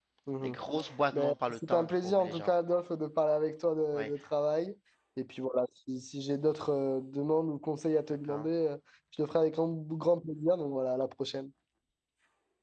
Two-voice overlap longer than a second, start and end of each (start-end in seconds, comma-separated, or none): 1.1-2.5